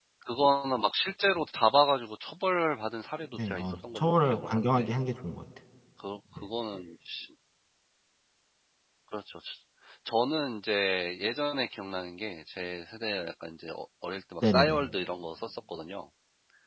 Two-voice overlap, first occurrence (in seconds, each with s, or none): 3.3 s